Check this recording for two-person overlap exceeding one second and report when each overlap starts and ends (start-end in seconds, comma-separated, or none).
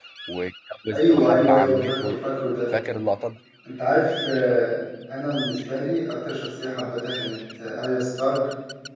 0.9-2.2